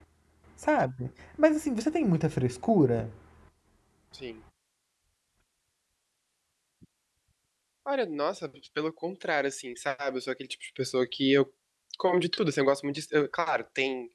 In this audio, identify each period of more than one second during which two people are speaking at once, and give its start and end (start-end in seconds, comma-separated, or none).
none